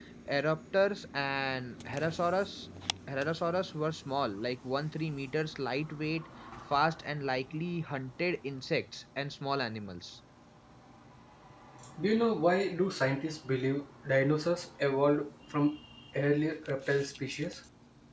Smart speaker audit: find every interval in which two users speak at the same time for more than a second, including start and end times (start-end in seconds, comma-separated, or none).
none